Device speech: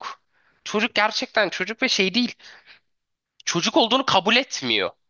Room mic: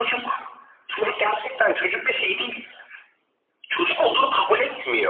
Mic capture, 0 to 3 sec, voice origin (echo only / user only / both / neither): echo only